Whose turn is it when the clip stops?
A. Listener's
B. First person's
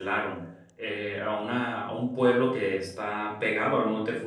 B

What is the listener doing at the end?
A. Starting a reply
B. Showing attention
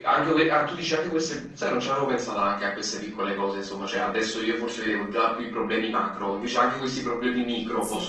A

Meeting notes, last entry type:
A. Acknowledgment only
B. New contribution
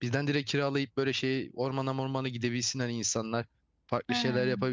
A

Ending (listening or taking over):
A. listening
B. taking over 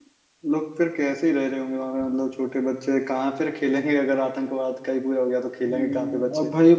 B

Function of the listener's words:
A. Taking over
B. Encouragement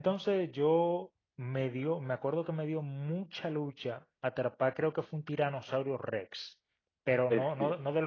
B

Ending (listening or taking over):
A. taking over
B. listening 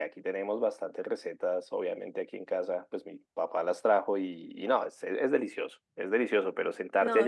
B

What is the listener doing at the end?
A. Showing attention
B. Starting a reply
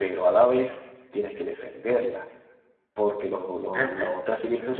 A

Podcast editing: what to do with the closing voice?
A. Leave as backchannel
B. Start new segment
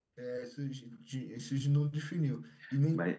A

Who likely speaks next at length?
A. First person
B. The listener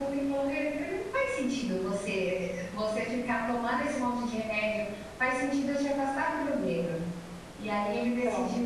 A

